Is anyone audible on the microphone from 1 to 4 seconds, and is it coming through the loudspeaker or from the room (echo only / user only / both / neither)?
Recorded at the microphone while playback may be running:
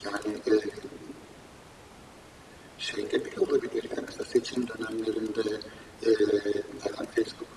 echo only